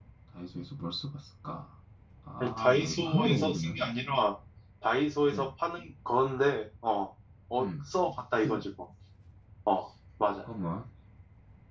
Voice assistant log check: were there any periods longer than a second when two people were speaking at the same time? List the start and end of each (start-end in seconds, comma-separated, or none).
2.4-3.7